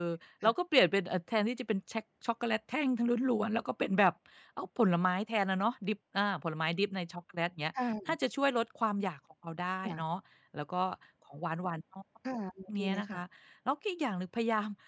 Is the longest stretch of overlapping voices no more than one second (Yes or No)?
Yes